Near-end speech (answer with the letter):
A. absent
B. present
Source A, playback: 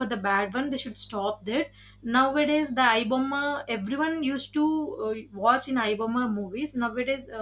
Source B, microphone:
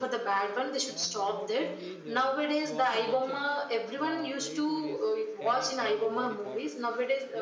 B